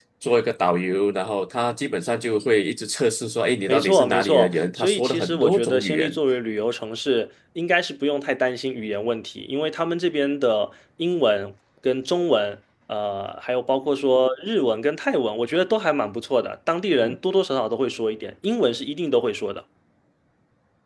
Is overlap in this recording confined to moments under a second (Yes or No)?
No